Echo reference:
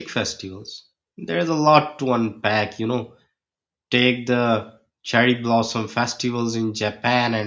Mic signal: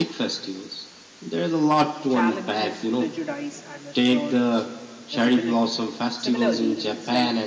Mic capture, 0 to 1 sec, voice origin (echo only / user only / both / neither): echo only